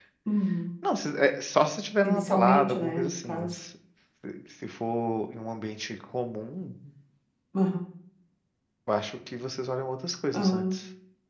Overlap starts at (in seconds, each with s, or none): 2.0 s